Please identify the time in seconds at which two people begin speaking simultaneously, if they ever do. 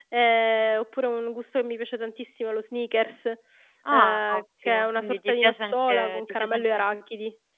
3.9 s

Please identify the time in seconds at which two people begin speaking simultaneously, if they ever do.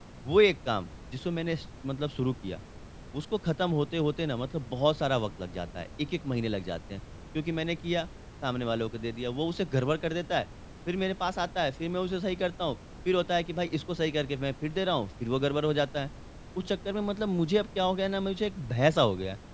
none

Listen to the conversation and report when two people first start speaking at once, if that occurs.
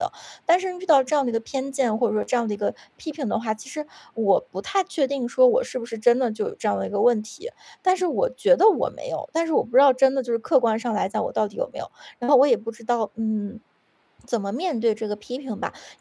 none

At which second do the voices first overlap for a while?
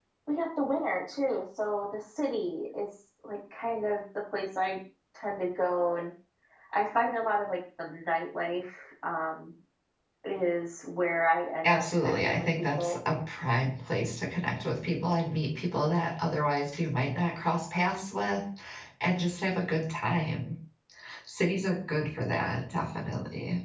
11.6 s

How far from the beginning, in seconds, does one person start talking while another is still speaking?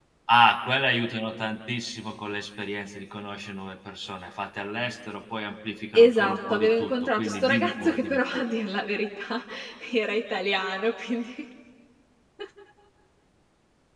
5.9 s

